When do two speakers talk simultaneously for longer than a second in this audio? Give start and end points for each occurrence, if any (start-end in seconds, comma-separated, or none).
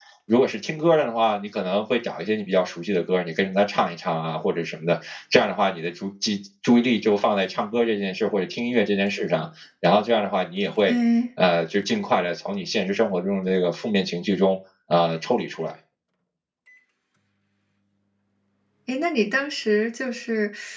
none